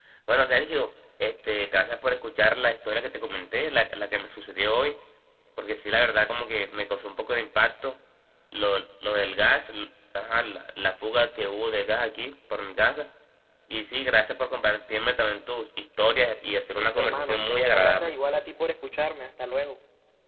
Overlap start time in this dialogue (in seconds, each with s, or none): 16.8 s